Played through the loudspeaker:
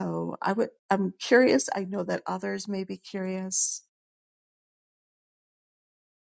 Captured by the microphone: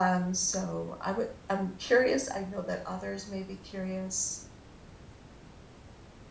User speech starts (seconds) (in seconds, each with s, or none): none